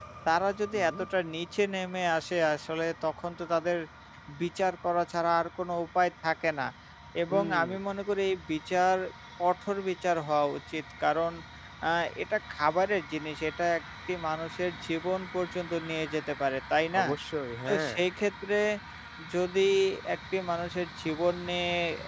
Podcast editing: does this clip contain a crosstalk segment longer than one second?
No

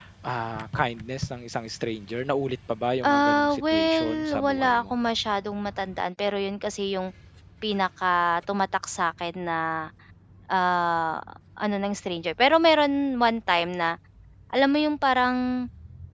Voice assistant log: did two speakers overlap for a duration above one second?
Yes, from 3.0 s

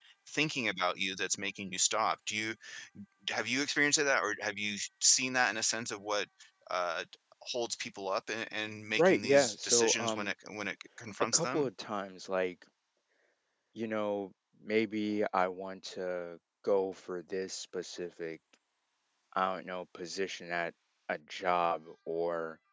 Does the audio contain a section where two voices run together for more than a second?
Yes, from 9.0 s

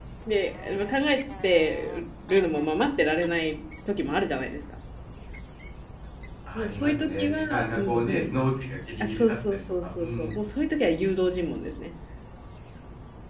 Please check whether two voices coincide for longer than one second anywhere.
Yes, from 6.6 s

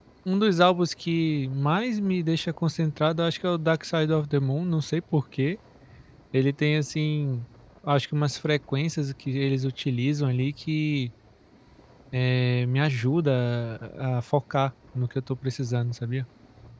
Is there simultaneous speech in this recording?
No

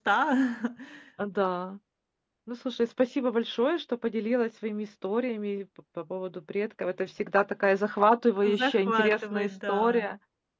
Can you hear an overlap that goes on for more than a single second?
Yes, from 8.6 s

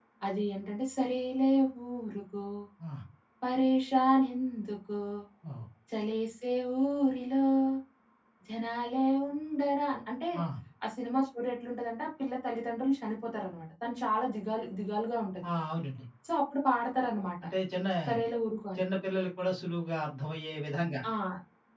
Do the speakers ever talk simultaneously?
No

